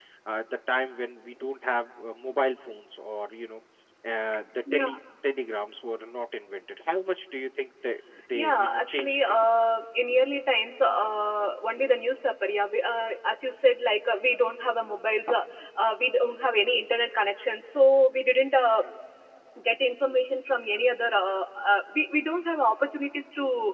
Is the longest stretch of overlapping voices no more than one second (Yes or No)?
No